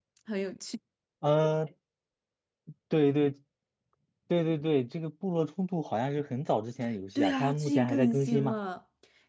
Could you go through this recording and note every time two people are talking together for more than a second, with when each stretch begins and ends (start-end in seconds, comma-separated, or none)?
7.2-8.6